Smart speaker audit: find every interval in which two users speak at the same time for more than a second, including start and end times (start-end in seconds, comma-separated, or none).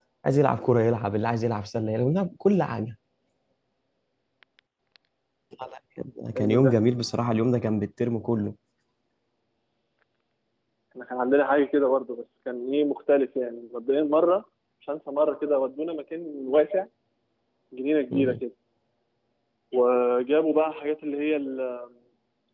none